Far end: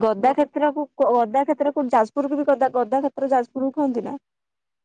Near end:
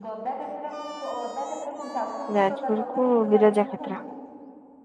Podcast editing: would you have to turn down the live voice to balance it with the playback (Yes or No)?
Yes